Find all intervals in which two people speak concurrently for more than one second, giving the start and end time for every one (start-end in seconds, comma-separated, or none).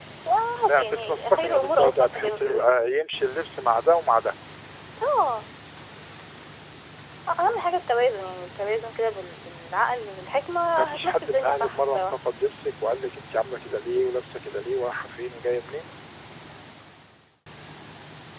0.7-2.7, 10.8-12.0